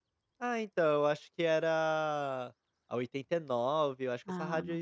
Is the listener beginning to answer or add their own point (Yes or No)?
No